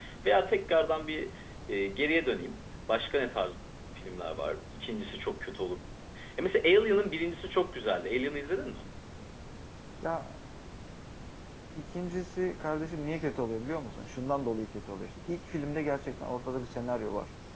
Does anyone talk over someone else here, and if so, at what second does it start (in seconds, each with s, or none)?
none